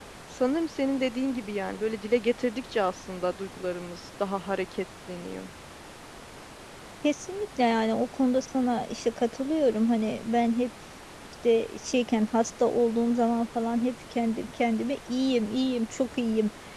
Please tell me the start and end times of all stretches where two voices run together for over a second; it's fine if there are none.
none

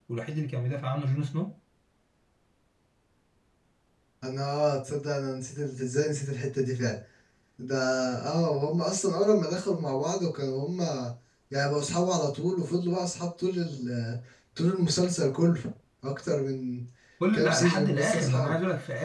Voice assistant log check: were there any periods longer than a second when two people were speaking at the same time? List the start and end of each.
17.3-18.5

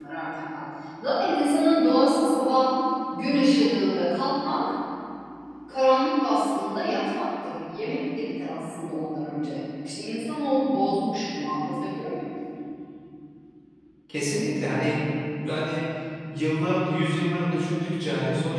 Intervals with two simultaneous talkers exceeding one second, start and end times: none

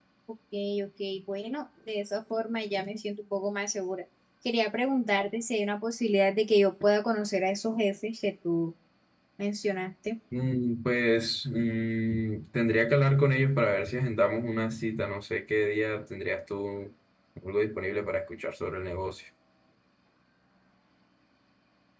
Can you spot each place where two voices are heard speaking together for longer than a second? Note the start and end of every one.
none

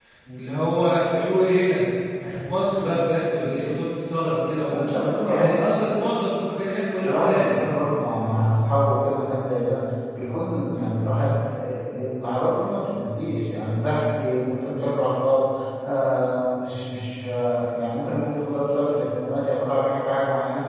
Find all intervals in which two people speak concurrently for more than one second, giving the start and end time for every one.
none

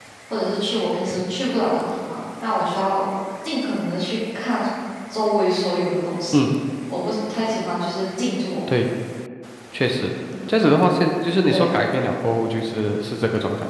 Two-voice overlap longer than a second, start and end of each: none

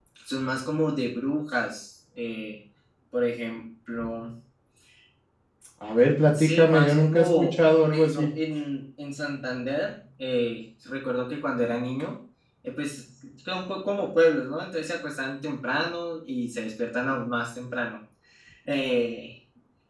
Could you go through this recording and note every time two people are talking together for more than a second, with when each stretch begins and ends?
6.4-8.3

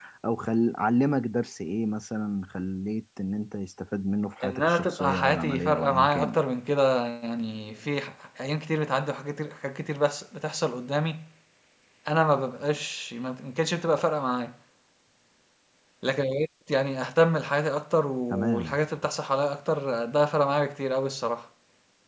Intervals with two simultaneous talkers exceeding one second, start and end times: 4.4-6.4

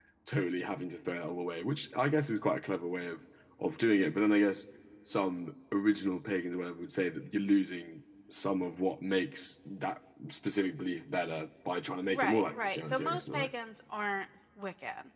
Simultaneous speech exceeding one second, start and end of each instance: 12.1-13.5

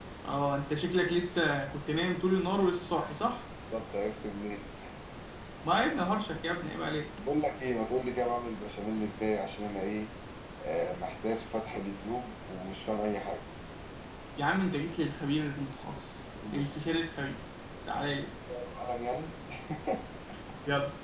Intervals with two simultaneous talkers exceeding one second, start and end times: none

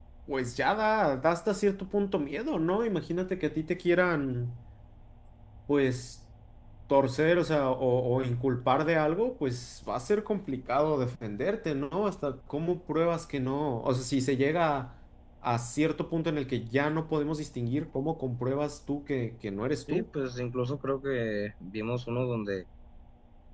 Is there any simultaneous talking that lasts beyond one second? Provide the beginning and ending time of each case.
none

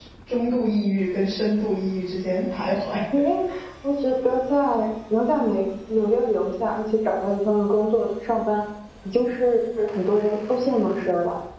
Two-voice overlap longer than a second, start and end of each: none

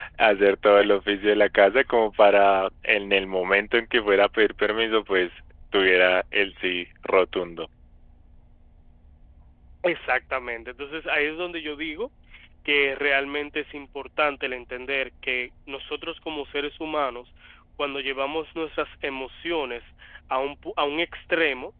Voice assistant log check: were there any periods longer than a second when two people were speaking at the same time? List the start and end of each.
none

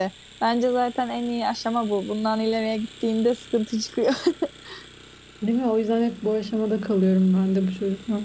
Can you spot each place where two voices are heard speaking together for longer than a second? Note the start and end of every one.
none

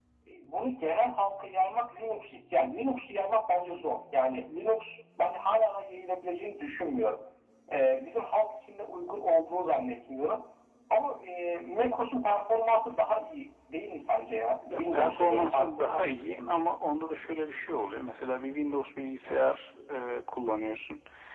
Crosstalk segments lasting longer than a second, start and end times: 14.7-16.6

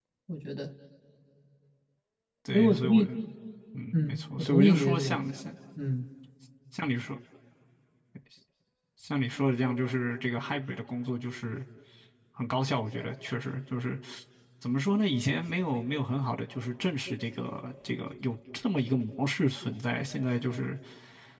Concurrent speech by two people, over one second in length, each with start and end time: 3.9-5.2

